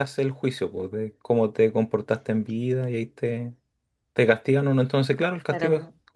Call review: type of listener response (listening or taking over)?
listening